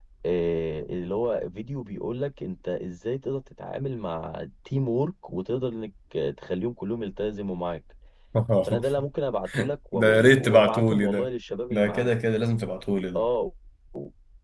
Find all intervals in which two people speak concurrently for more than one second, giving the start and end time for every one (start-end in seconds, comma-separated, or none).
9.9-11.3